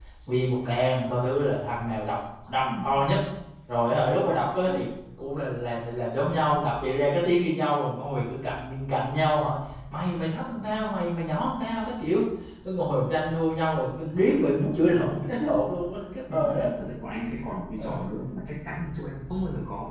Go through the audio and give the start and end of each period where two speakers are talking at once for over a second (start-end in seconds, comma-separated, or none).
none